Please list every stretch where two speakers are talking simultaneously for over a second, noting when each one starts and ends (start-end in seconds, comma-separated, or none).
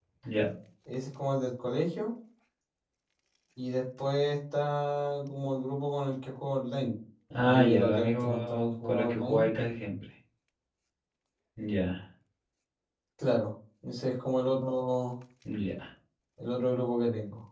7.4-9.5